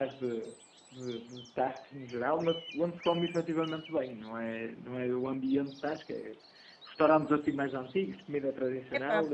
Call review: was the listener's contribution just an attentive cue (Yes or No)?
No